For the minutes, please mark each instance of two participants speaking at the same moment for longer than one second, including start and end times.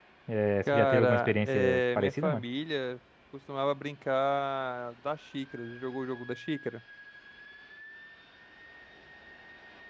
0.7-2.4

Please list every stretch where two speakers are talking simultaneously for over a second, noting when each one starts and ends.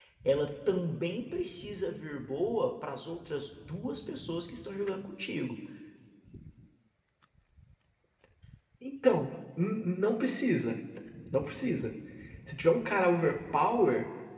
none

